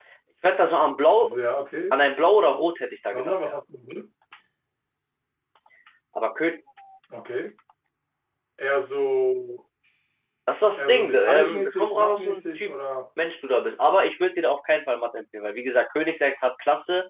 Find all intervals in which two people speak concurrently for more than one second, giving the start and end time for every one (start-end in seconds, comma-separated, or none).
10.8-12.7